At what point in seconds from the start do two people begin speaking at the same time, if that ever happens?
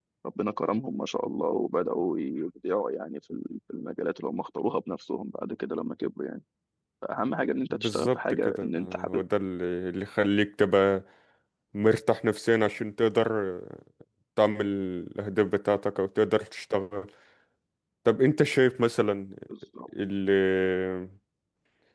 8 s

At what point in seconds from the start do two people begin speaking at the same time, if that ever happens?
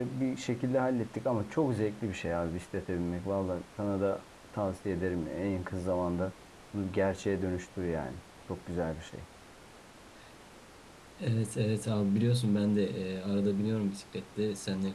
none

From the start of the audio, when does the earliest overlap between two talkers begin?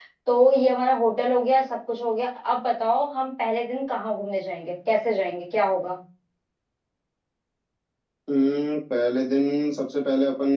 none

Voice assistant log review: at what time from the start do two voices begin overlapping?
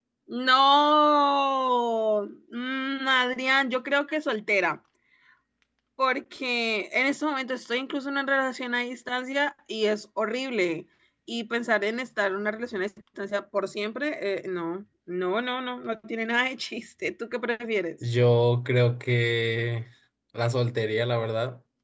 none

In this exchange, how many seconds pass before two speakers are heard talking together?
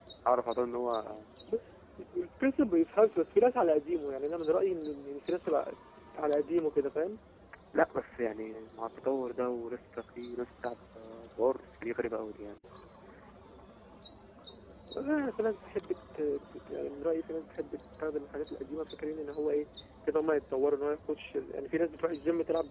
none

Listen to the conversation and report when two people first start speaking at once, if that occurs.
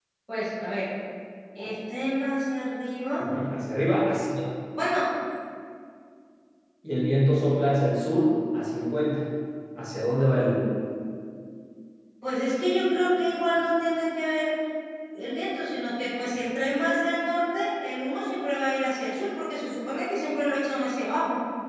none

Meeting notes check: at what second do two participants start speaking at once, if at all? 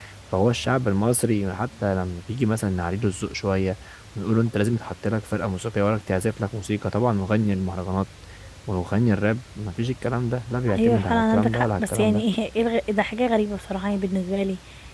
11 s

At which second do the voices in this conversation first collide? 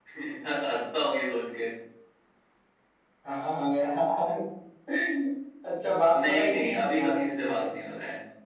6 s

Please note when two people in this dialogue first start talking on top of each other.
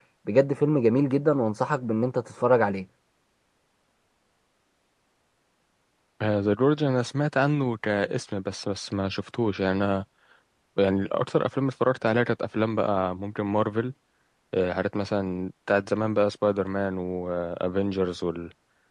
none

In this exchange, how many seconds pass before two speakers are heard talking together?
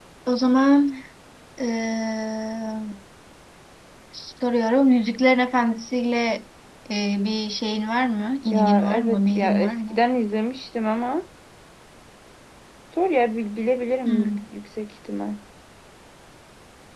8 s

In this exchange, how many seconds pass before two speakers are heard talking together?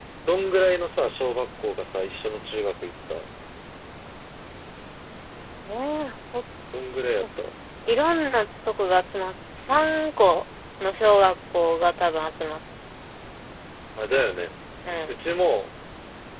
none

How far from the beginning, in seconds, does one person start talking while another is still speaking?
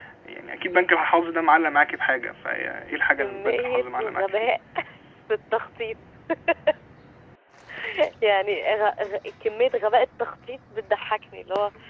3 s

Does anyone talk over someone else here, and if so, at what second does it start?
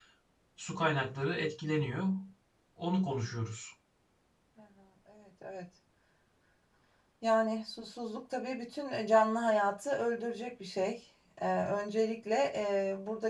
none

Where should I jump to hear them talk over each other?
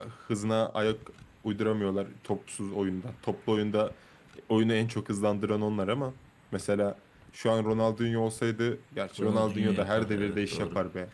9 s

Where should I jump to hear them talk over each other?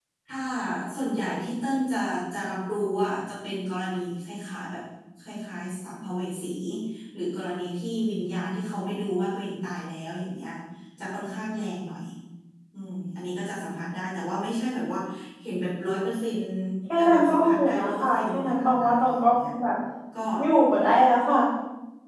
17 s

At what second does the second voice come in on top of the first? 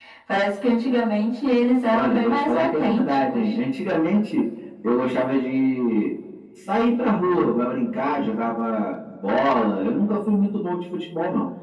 2 s

